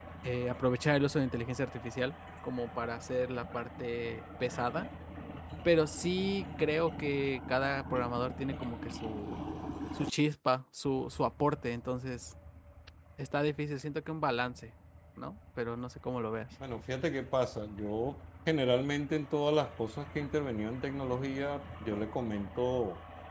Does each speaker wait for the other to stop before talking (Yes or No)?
Yes